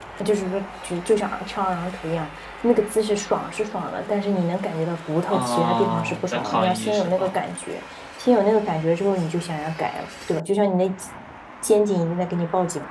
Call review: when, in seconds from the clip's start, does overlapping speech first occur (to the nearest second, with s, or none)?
5 s